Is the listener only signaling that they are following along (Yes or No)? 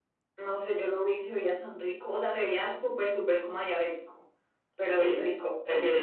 No